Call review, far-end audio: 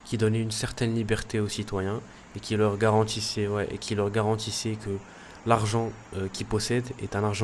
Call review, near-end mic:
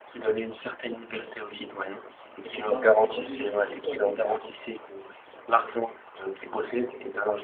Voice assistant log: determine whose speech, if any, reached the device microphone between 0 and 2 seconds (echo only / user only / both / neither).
echo only